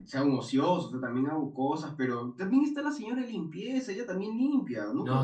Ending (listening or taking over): taking over